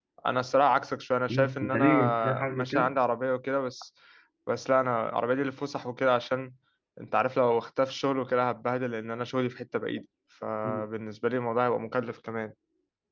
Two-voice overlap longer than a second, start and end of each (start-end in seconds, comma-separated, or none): 1.3-2.9